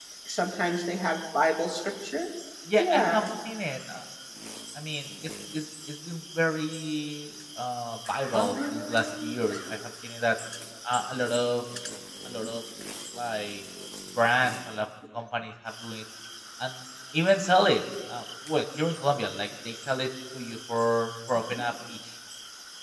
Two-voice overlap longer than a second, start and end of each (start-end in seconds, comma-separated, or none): 8.3-9.5